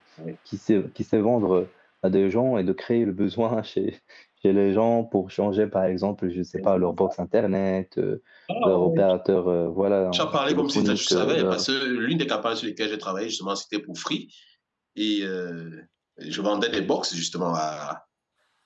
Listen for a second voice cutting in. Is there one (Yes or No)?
Yes